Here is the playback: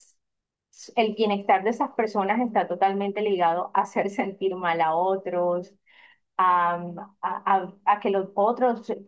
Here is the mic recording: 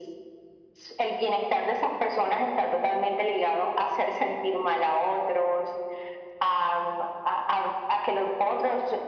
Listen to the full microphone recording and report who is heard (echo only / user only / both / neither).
echo only